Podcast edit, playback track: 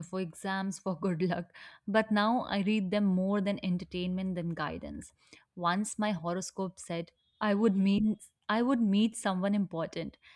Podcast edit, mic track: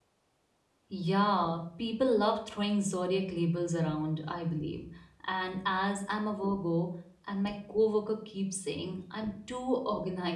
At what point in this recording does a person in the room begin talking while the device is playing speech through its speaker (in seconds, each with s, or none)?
0.9 s